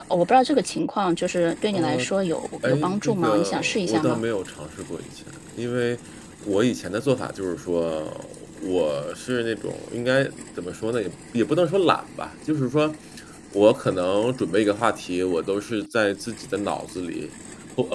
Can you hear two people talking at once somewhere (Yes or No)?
Yes